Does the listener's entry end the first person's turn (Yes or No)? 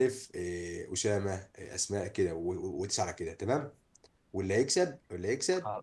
No